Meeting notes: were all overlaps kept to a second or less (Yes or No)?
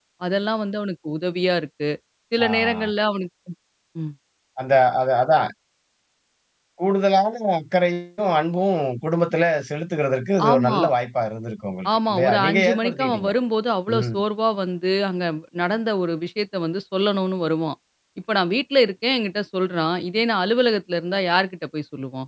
No